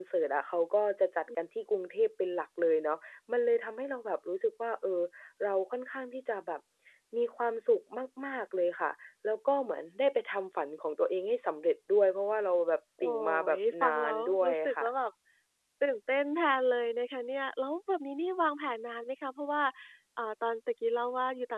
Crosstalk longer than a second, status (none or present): present